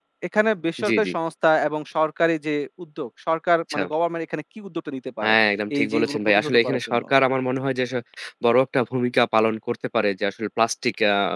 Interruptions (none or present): present